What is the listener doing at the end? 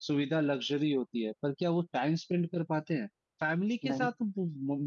listening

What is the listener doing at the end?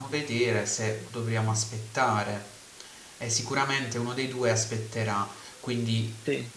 listening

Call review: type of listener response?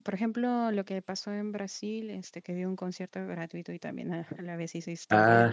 taking over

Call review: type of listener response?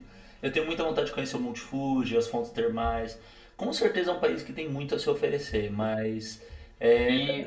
taking over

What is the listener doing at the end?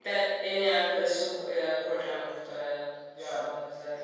taking over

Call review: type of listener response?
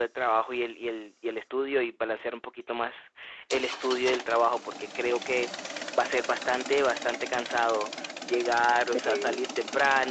listening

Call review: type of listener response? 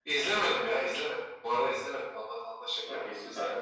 taking over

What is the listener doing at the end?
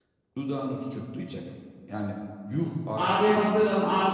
taking over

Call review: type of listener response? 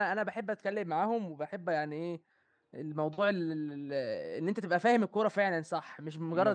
listening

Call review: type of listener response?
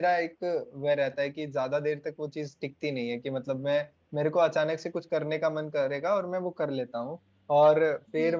listening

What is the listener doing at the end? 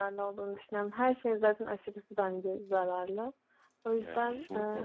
listening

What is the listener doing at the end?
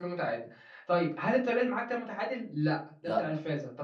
listening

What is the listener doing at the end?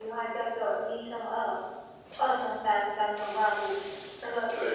taking over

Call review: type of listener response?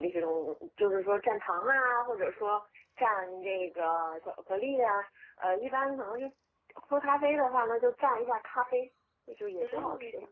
taking over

